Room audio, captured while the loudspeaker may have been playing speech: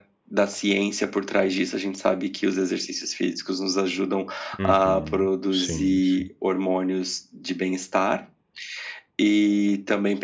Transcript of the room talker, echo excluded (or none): Uhum. Sim, sim.